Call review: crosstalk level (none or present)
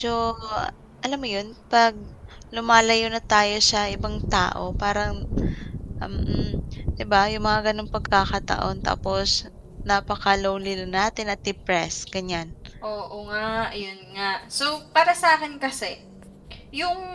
none